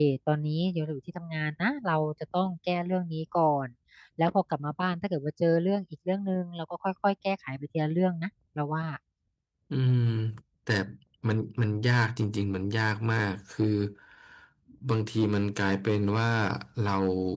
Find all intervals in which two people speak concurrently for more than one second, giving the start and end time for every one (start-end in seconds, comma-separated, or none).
none